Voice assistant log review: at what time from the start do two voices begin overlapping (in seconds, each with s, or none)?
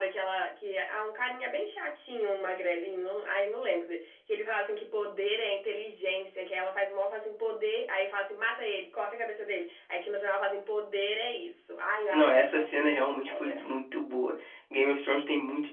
12.1 s